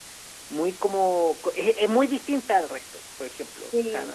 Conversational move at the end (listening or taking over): listening